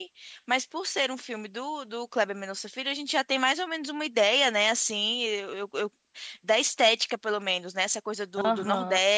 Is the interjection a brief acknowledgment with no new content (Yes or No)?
Yes